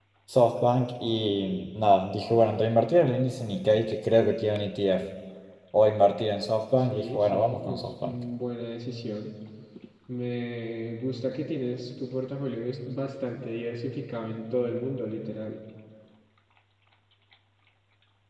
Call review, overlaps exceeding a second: present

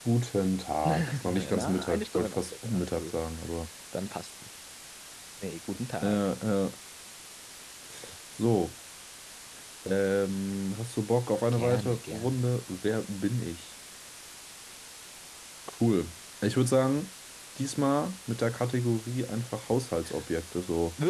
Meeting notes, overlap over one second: present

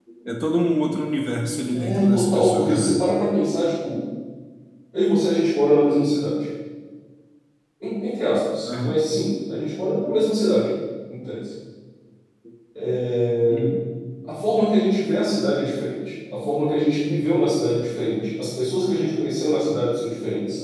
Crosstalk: present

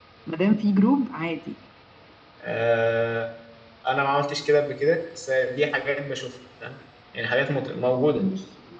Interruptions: none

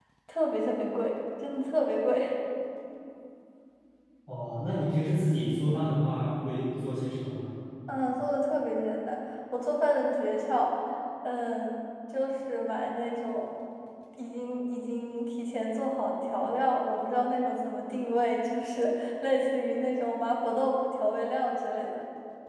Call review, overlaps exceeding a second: none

